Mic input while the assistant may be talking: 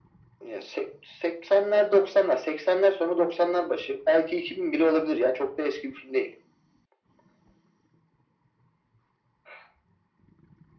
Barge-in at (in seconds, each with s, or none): none